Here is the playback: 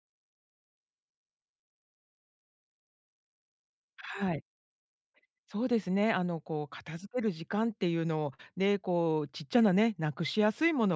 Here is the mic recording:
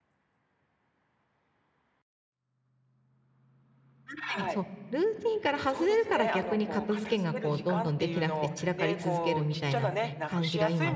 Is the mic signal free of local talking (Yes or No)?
No